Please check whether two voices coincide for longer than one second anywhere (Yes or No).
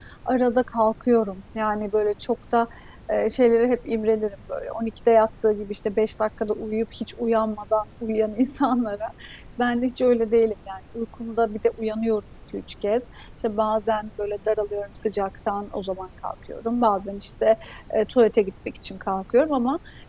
No